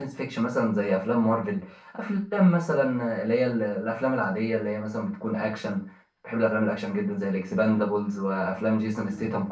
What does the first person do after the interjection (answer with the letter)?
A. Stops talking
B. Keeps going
B